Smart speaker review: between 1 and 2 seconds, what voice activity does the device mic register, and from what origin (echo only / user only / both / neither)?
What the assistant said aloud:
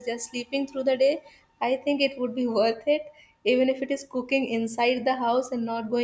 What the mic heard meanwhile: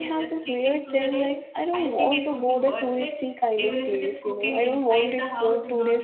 both